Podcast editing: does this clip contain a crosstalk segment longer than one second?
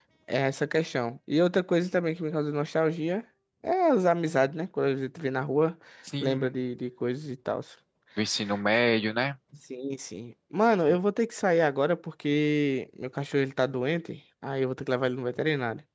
No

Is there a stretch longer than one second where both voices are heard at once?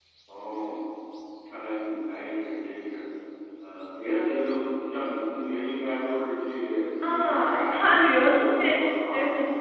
Yes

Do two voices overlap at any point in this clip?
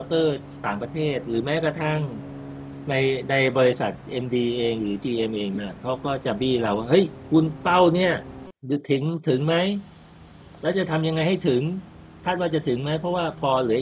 No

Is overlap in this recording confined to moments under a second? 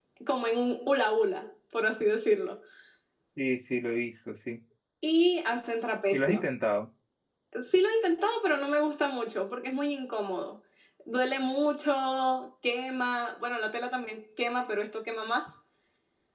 Yes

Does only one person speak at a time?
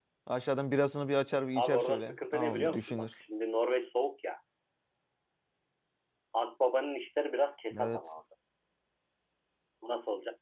No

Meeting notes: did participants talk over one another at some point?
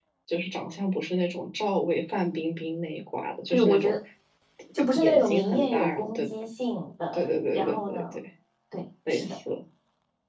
Yes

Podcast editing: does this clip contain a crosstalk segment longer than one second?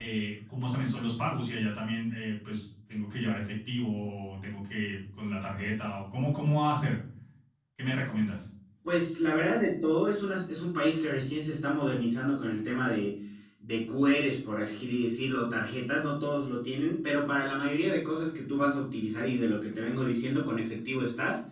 No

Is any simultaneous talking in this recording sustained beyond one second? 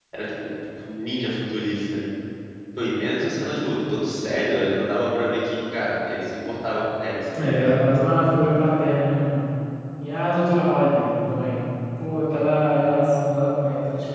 No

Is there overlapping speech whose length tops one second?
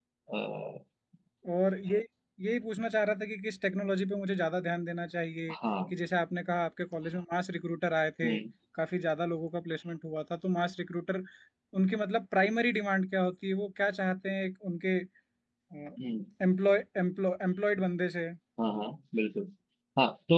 No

